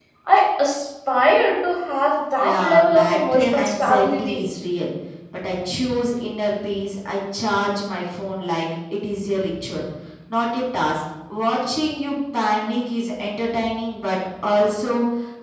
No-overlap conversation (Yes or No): No